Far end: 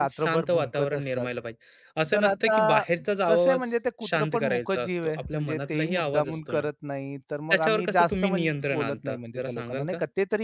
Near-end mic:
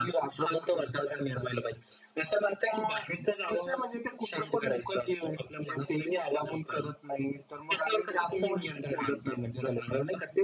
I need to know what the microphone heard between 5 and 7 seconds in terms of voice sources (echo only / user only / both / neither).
echo only